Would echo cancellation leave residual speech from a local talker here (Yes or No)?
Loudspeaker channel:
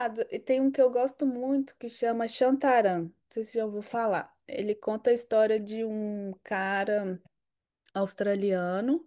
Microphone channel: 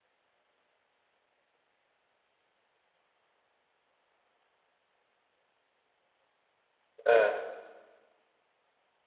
Yes